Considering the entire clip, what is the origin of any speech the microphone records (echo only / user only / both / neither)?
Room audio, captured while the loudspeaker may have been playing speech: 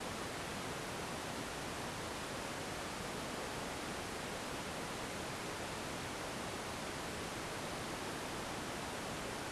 neither